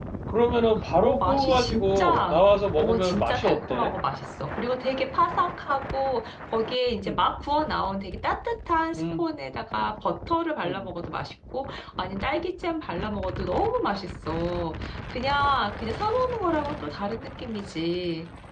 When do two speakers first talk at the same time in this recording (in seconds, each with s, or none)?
1.0 s